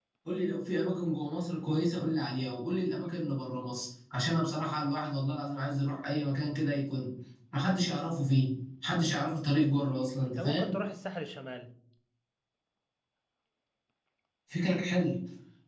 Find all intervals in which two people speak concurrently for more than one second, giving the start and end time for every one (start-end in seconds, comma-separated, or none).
none